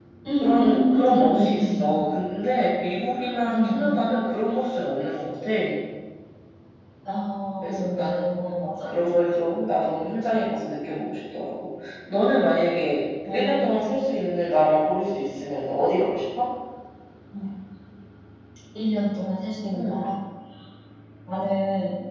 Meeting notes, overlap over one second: present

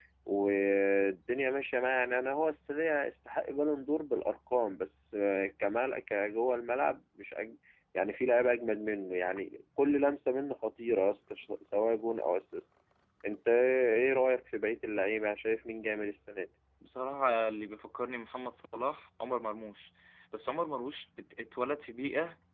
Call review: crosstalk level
none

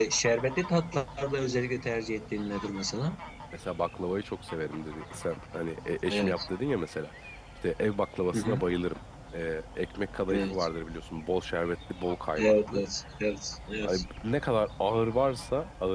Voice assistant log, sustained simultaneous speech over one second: none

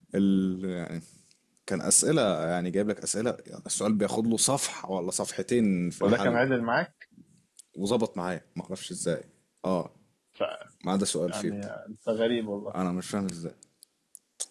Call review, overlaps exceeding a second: none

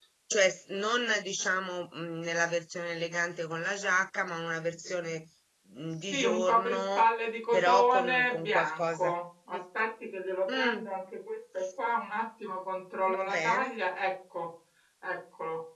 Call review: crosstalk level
present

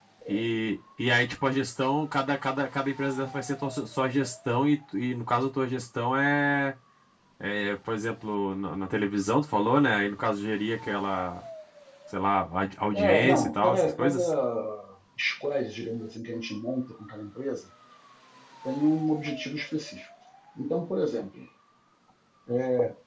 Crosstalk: present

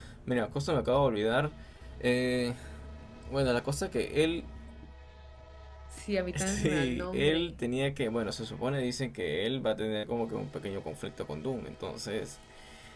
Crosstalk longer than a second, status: present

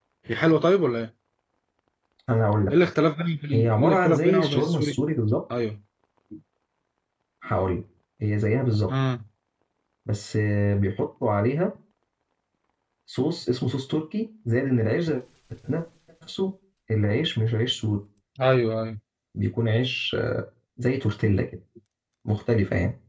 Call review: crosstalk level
present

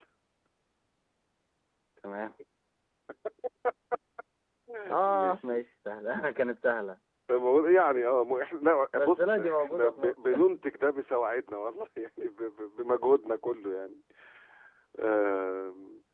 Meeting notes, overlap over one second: present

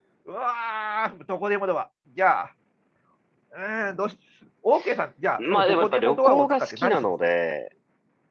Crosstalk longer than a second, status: present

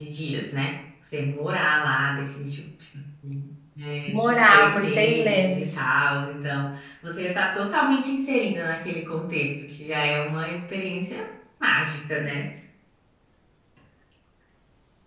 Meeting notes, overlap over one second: present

